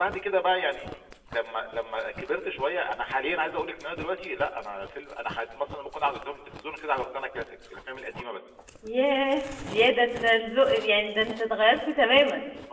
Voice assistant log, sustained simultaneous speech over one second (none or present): none